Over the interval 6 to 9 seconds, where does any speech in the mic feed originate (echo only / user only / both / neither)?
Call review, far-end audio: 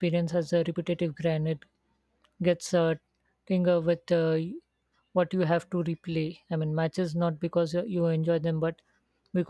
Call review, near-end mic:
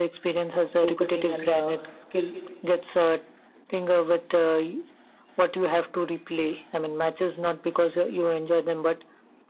echo only